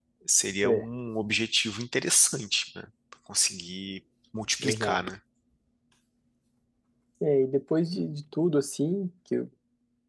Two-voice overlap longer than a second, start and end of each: none

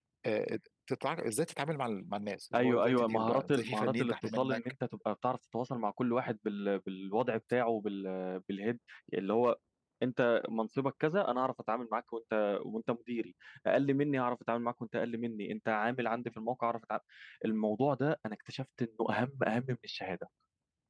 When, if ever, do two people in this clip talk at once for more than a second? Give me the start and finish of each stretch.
2.5-4.6

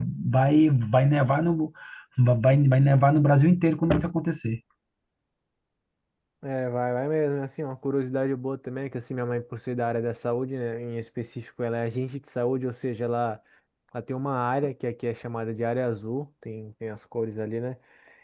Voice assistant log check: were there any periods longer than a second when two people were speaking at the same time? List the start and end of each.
none

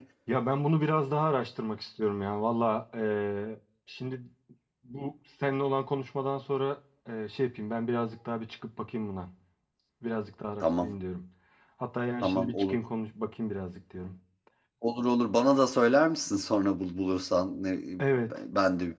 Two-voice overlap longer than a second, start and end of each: none

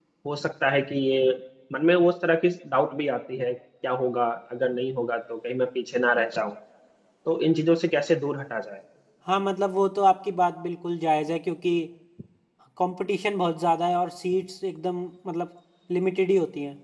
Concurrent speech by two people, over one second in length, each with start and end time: none

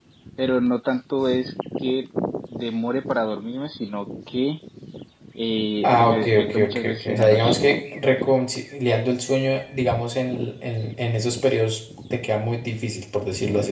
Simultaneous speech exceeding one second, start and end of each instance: 5.8-7.6

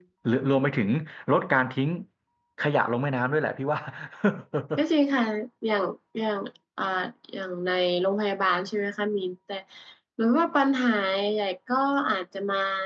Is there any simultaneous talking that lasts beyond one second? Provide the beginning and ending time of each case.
none

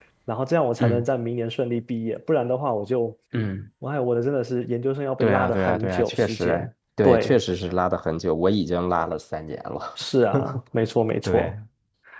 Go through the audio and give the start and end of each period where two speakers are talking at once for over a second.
5.2-6.6

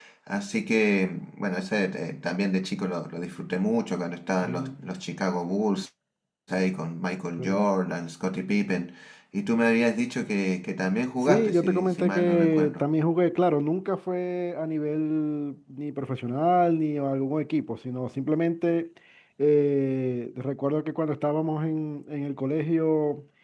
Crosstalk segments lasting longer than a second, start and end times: 11.2-12.8

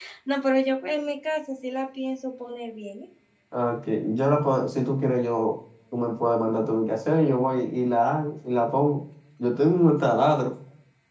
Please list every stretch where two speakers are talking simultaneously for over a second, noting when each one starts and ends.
none

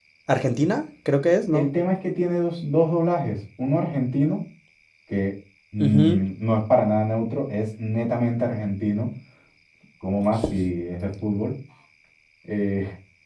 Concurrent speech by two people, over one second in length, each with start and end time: none

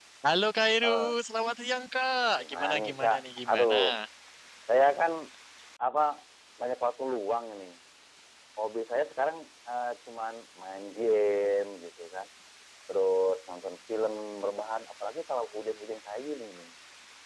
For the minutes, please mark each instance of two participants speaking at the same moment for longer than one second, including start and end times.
2.4-3.7

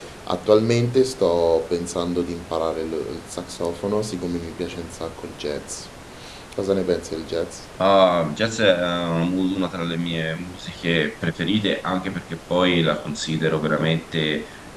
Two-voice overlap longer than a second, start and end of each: none

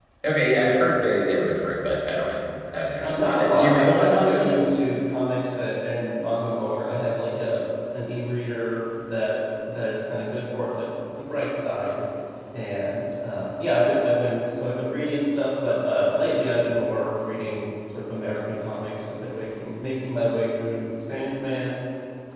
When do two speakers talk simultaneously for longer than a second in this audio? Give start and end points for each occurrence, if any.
3.0-4.5

